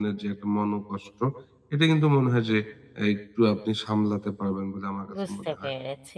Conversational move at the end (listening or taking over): taking over